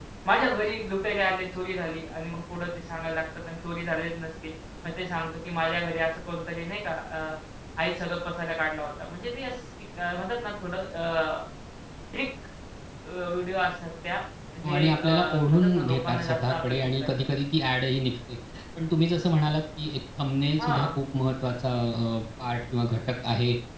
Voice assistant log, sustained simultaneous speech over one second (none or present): present